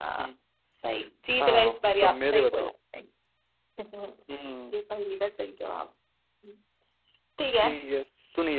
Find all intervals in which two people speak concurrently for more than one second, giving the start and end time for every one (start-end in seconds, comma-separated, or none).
1.4-2.7